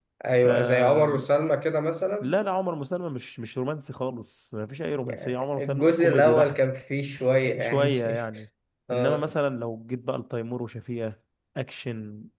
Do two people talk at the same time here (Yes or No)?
Yes